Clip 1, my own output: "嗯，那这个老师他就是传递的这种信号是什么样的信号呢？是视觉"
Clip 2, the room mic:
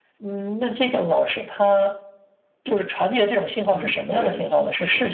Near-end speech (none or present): present